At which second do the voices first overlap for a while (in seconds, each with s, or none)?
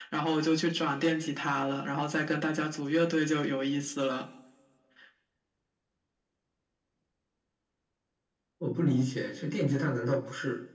none